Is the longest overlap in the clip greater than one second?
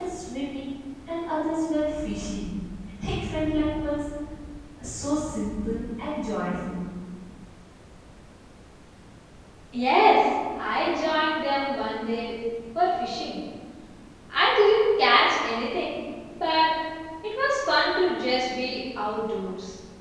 No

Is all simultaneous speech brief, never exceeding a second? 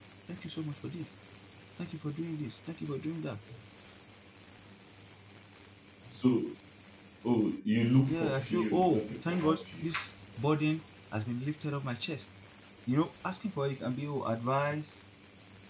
No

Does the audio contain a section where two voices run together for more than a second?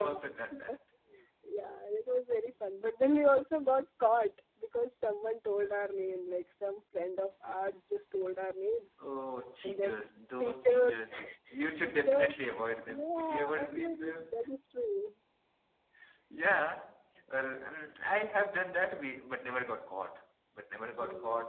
Yes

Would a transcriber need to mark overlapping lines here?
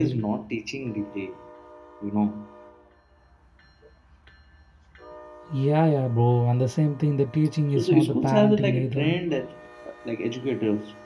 Yes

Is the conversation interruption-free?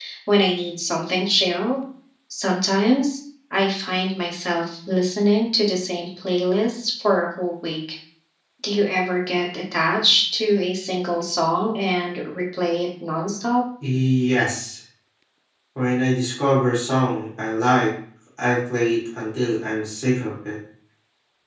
Yes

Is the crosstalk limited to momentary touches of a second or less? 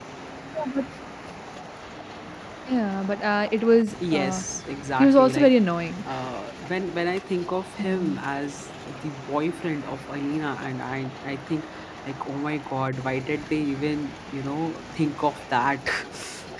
Yes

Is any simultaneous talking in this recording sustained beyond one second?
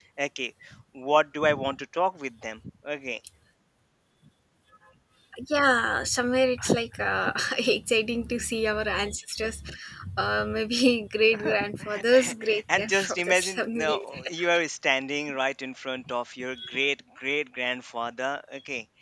Yes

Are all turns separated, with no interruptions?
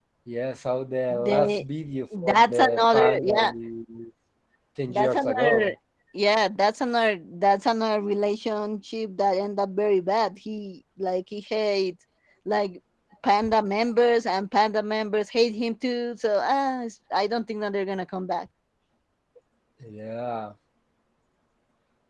No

